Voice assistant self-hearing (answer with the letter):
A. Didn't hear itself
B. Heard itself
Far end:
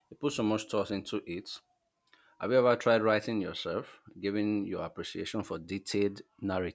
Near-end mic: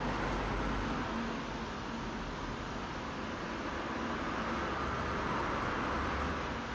A